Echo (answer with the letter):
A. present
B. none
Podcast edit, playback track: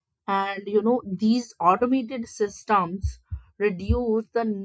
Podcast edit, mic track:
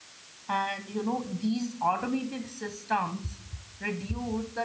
A